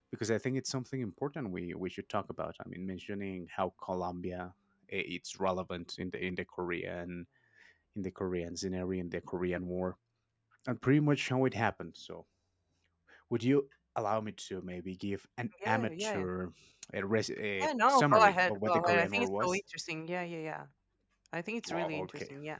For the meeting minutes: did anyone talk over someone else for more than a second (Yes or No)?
Yes